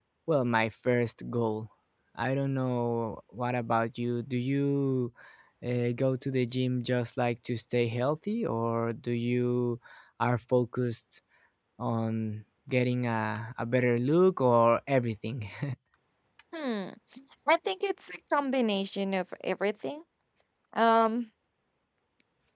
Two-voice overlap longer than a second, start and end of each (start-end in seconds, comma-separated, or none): none